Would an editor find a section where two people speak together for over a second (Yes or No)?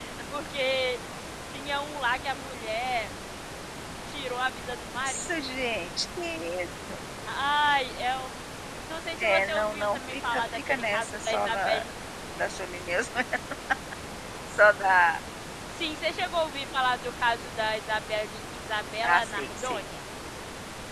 Yes